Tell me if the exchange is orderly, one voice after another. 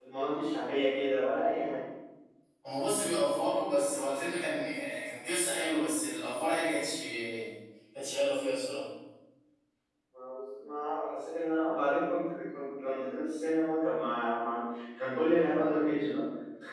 Yes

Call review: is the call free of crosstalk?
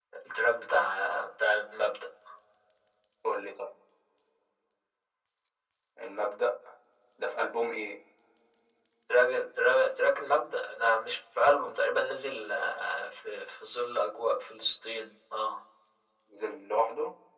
Yes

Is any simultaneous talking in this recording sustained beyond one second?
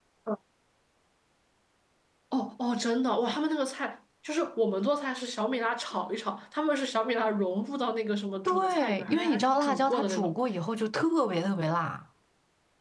Yes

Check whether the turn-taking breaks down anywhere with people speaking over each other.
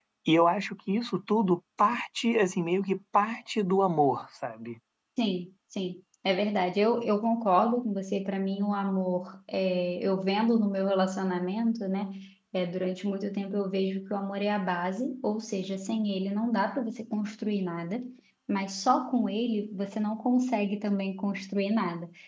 No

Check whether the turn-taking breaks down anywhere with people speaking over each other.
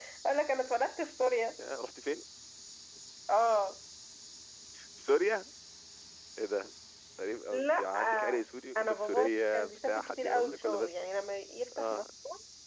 Yes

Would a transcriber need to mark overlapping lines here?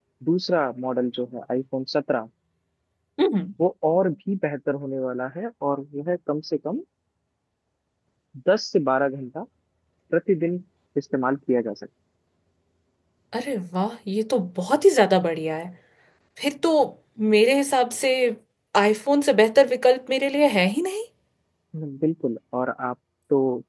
No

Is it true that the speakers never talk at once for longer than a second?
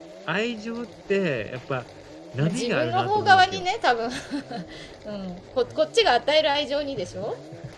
No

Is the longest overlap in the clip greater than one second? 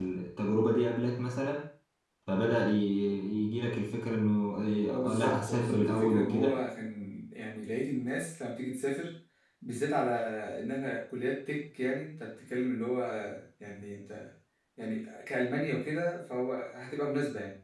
Yes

